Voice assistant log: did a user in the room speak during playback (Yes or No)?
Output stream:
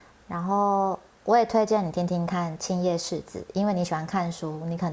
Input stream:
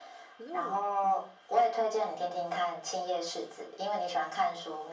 Yes